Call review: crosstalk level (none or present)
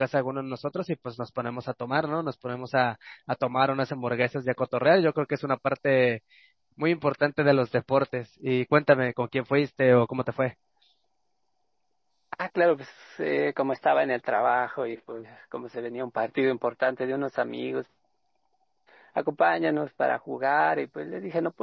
none